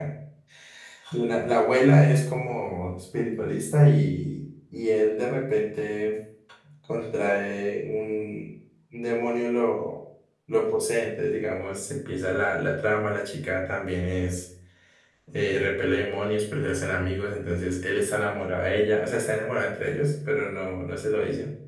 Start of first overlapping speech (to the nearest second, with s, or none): none